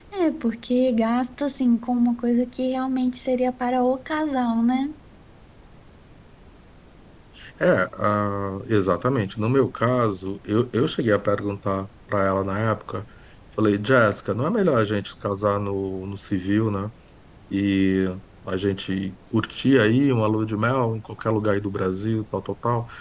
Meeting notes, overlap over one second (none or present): none